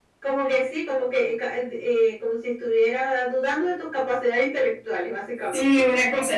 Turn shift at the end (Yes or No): Yes